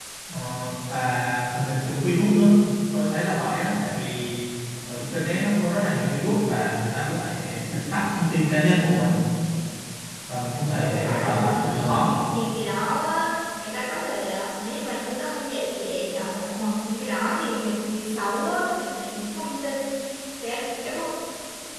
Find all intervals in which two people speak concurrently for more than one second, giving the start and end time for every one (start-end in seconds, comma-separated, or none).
10.8-12.1